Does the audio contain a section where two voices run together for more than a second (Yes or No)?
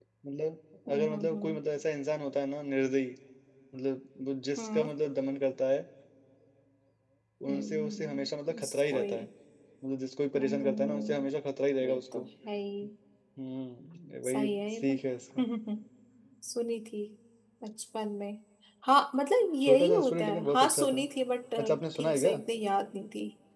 Yes